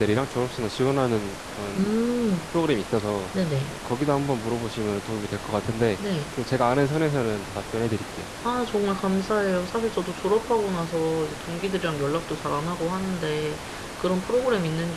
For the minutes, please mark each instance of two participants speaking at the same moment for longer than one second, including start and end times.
none

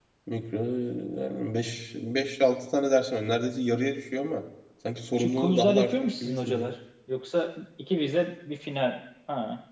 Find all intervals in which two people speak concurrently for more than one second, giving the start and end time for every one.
5.2-6.7

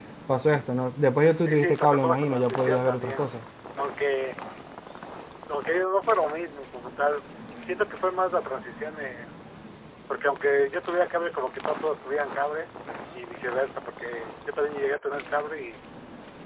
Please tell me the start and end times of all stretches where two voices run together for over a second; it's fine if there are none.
1.4-3.2

